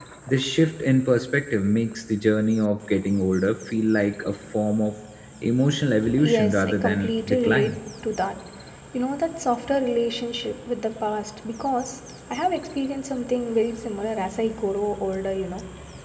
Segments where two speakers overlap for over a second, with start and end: 6.2-7.8

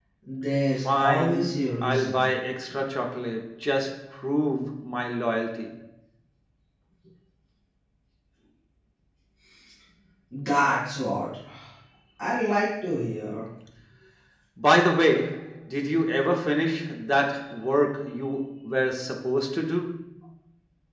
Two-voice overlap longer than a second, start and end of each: 1.0-2.3

